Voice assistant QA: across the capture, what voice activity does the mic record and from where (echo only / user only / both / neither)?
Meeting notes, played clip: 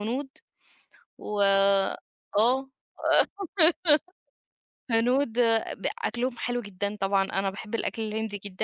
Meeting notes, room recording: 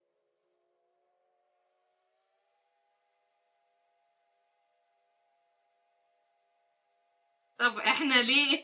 user only